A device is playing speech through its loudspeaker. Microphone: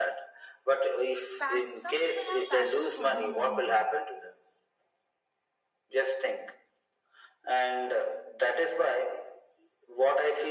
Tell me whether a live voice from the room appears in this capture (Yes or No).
Yes